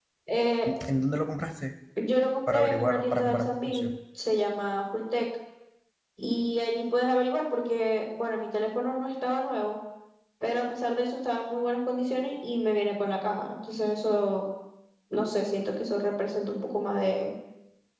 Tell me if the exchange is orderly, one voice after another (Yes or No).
No